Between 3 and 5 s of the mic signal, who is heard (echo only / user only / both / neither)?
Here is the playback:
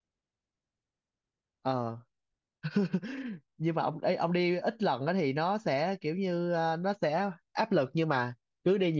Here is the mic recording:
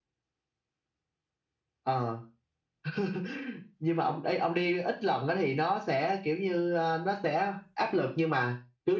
echo only